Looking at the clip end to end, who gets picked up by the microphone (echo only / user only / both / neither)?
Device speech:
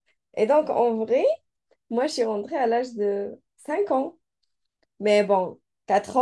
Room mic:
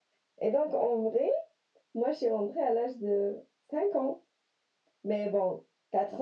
echo only